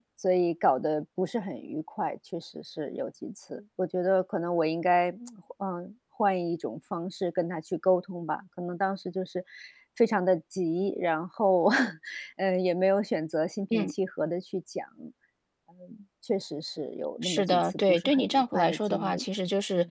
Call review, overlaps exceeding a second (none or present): present